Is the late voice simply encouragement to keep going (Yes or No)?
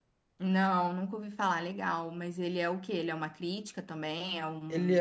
No